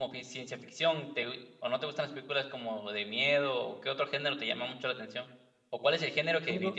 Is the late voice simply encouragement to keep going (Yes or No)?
Yes